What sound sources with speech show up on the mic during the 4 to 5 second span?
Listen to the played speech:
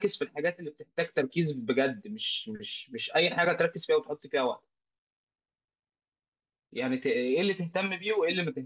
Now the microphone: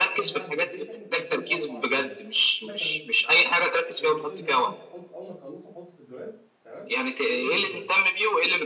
both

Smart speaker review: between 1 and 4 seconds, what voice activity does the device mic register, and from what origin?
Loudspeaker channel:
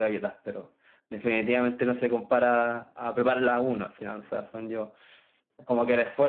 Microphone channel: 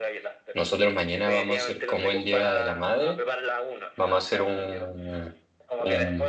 both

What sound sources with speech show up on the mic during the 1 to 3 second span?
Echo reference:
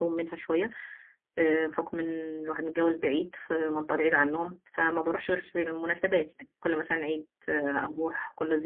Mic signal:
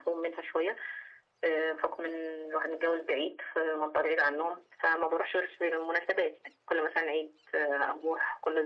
echo only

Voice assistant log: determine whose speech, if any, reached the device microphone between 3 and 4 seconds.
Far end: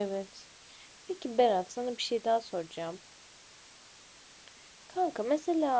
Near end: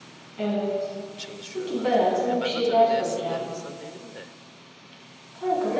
both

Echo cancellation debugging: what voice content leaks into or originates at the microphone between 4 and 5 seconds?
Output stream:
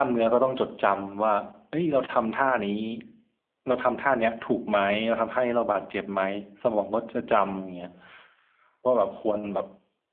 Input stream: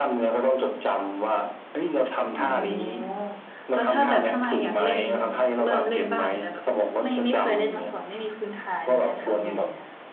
both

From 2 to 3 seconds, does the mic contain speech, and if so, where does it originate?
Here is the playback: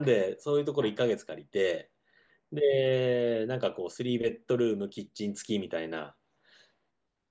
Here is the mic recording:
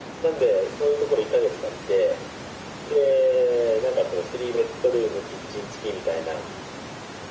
echo only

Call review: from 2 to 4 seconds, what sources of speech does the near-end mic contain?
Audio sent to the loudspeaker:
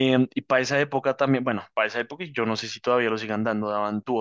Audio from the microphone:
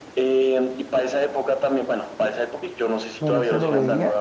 both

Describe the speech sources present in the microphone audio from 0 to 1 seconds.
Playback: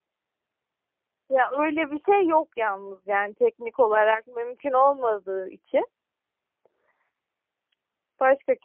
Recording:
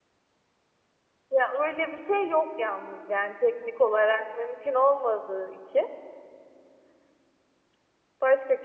neither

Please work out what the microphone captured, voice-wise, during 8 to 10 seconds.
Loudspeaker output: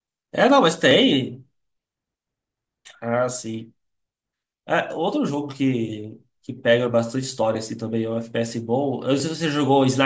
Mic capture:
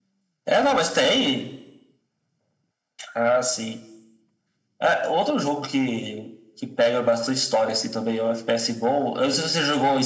echo only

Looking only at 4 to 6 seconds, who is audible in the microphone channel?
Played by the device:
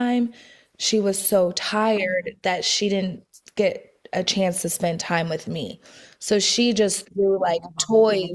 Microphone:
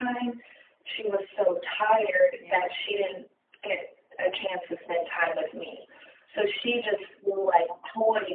echo only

